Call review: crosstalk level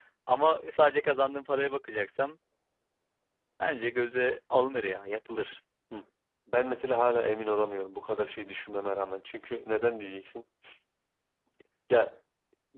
none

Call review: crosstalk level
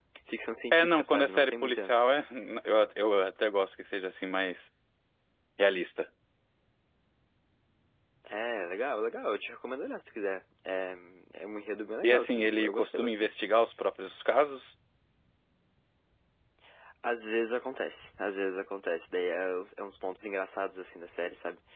present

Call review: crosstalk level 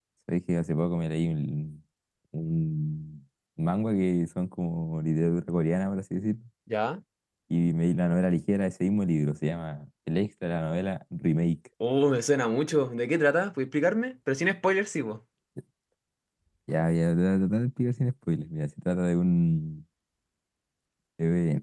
none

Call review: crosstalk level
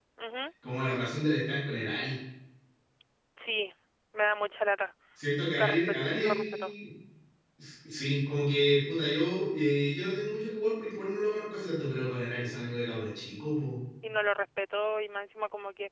present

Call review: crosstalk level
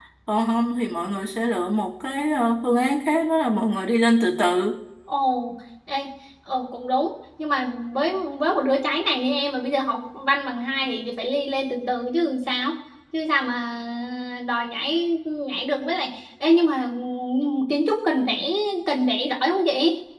none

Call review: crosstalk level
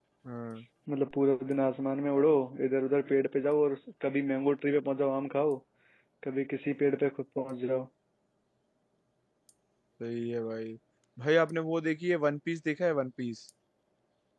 none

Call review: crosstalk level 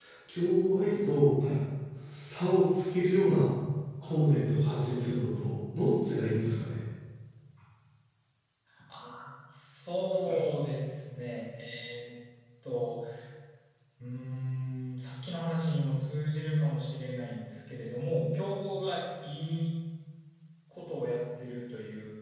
none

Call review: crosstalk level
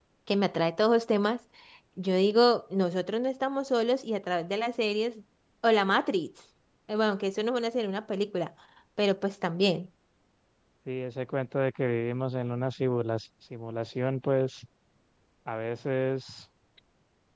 none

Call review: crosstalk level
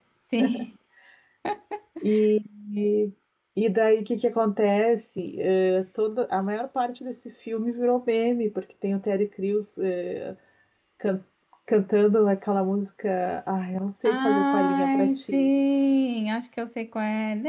present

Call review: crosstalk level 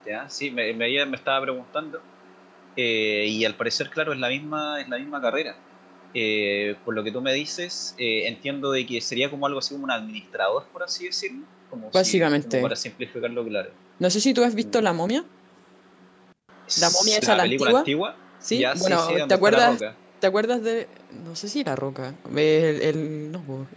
present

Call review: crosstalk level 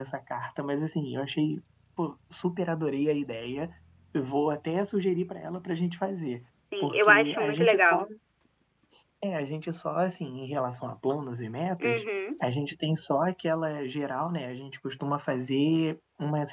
present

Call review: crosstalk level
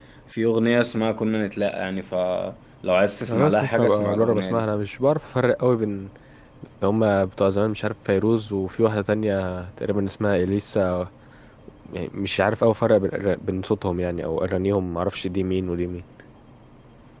present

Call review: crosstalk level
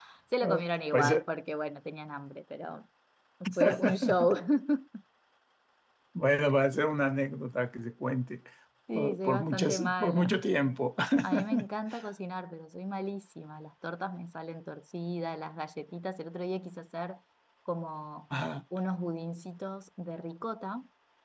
present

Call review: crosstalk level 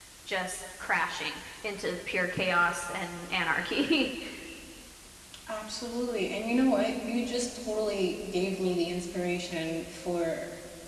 none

